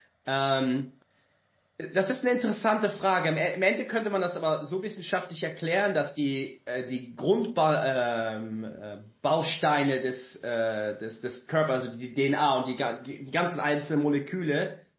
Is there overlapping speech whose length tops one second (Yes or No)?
No